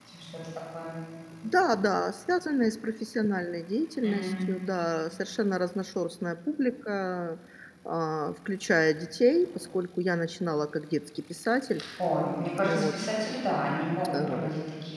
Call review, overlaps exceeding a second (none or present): none